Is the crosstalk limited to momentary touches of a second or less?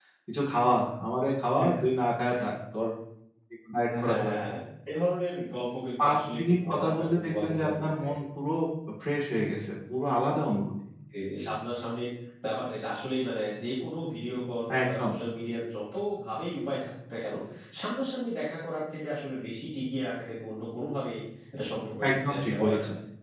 No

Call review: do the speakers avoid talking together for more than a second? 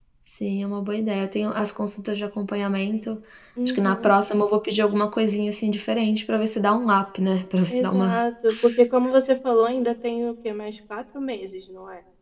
Yes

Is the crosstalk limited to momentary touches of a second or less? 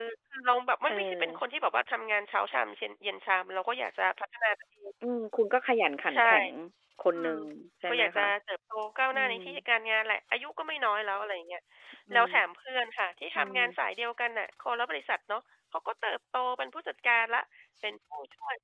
Yes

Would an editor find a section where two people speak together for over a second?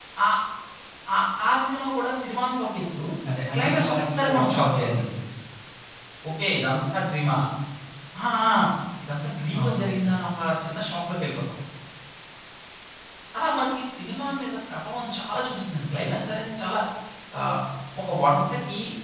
Yes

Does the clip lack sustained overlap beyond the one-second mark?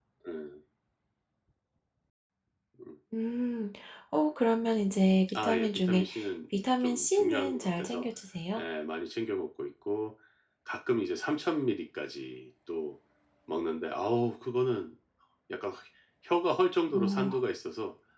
No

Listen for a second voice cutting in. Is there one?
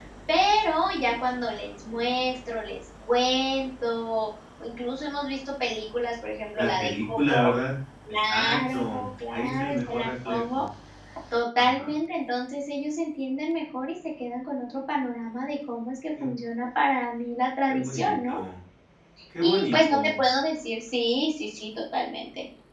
Yes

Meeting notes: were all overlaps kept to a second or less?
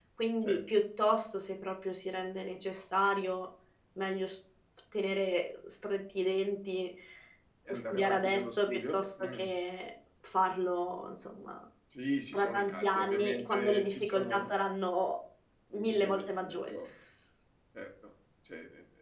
No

